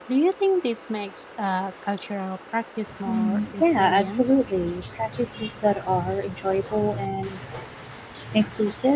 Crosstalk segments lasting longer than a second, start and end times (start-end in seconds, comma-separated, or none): 3.1-4.3